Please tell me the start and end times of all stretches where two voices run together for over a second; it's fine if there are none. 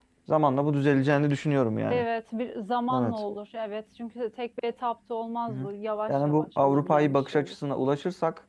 6.1-7.5

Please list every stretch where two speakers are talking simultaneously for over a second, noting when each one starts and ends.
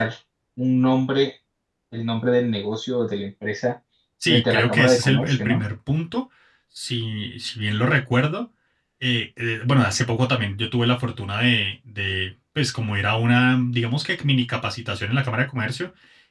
4.3-5.6

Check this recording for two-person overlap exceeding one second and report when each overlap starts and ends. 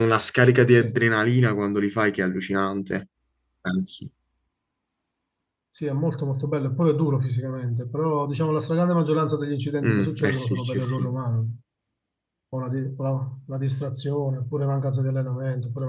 9.8-11.1

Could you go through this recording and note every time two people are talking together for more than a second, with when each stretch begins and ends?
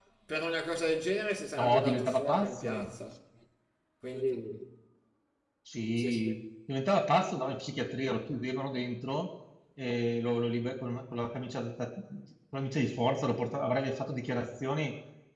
1.6-2.9

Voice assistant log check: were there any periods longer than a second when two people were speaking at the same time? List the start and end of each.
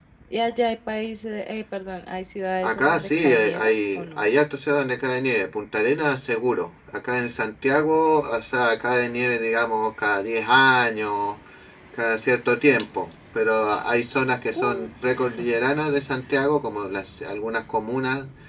2.6-4.2

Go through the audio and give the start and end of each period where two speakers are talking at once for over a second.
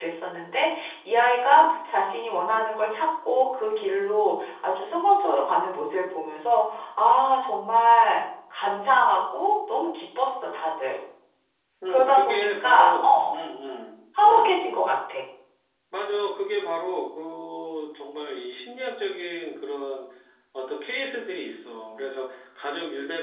11.9-13.4

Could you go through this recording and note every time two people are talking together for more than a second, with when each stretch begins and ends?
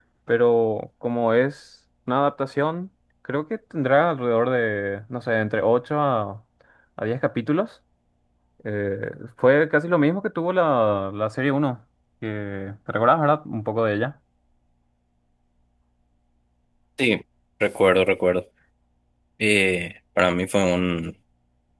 none

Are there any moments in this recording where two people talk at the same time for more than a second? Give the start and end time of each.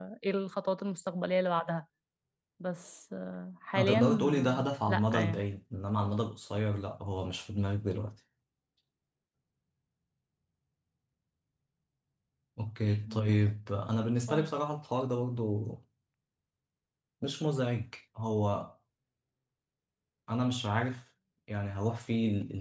3.8-5.4

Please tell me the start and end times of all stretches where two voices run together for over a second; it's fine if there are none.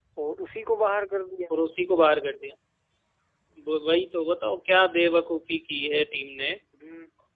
none

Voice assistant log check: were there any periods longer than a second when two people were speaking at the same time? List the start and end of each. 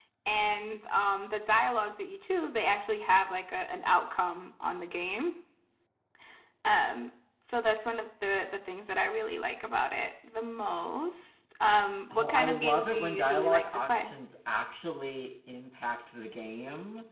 12.1-14.1

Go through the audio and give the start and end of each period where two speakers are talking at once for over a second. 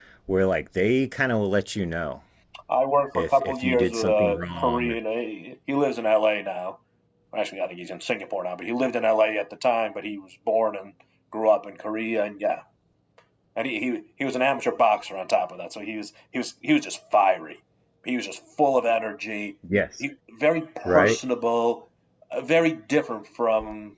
3.2-5.0

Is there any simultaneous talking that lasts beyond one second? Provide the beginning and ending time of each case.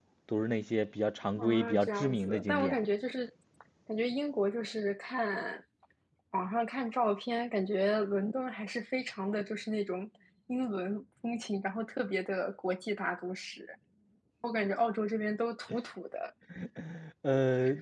1.4-2.8

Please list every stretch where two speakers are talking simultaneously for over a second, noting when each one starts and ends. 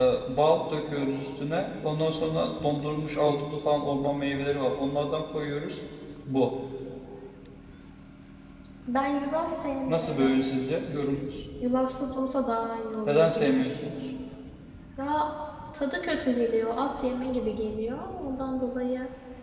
none

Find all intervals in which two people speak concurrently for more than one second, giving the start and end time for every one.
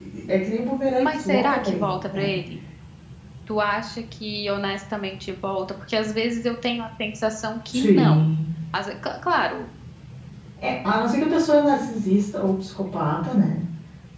1.0-2.3

